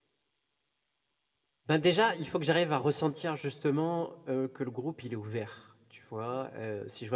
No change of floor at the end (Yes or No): Yes